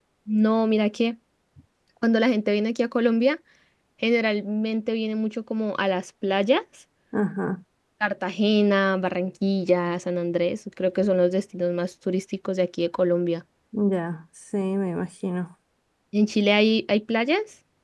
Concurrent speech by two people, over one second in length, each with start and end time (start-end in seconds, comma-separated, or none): none